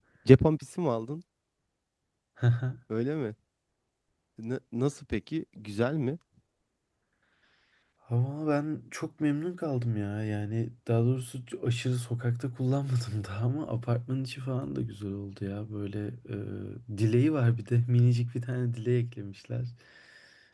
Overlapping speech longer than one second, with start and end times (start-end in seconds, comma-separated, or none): none